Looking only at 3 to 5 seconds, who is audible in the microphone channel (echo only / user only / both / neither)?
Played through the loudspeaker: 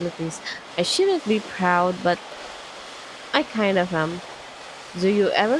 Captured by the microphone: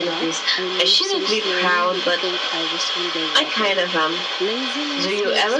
both